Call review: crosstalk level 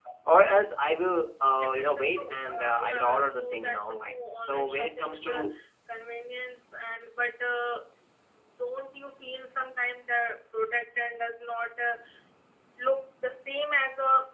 present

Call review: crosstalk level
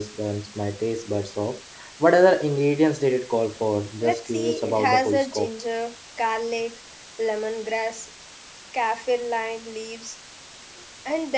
present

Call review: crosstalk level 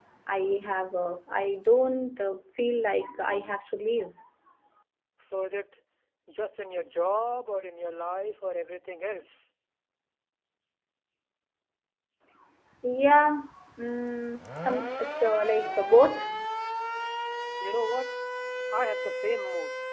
none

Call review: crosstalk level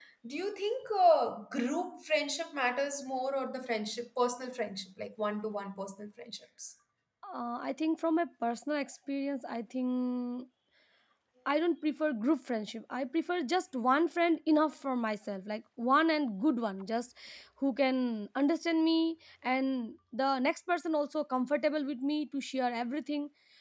none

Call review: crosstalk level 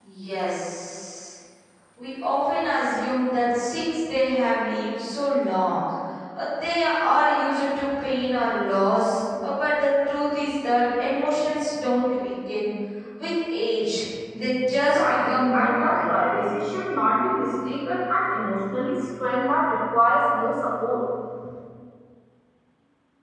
present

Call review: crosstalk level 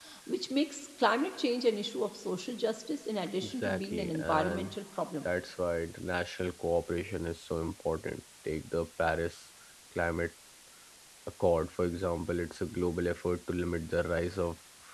present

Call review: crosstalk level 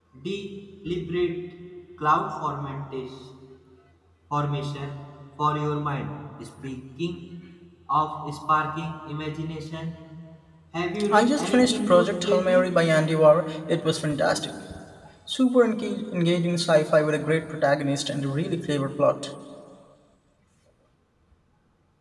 present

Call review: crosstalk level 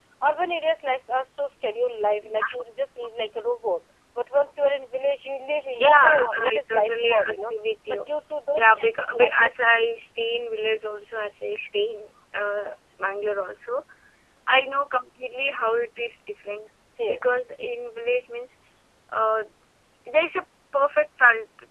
present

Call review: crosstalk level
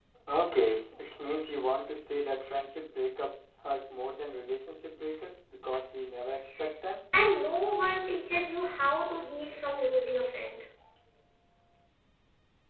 none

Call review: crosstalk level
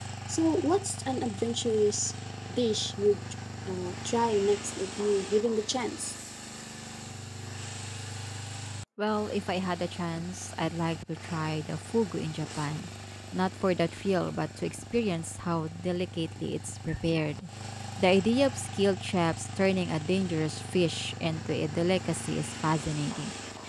none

